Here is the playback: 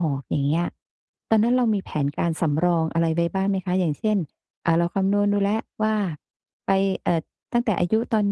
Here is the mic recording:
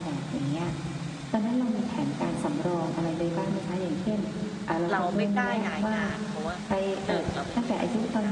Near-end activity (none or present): present